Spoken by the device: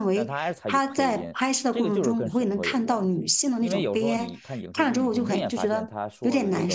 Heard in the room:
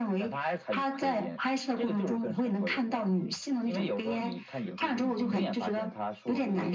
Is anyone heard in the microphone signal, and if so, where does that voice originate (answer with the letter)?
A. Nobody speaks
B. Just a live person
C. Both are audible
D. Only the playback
D